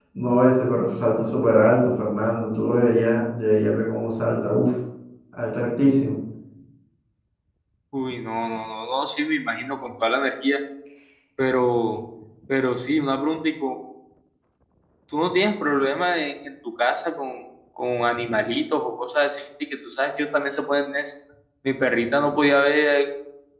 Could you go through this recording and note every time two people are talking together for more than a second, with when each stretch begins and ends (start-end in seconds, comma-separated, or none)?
none